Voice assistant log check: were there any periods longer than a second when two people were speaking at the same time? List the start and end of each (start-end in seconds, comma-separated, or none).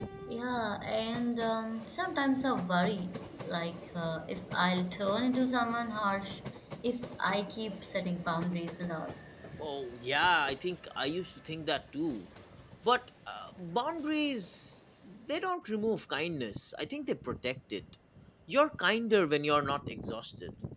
none